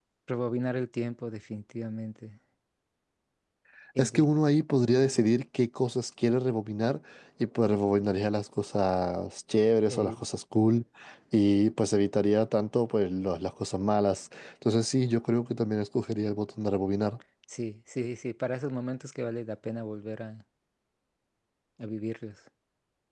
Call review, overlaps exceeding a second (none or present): none